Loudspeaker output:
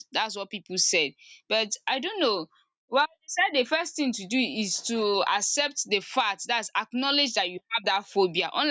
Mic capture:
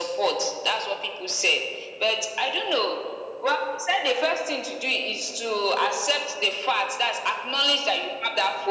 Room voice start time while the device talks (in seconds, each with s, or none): none